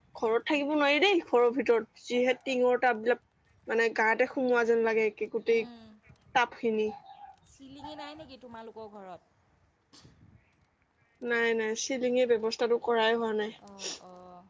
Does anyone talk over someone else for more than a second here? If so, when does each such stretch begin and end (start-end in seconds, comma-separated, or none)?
none